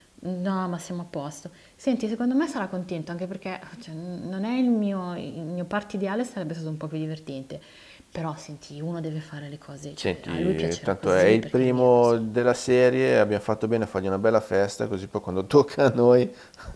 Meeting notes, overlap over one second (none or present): present